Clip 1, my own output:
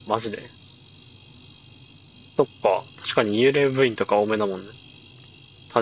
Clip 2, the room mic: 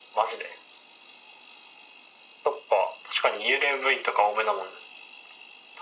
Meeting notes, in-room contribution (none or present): none